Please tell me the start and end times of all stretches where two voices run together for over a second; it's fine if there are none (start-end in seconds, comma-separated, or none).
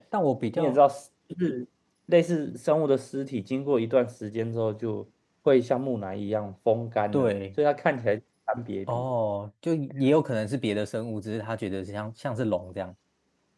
none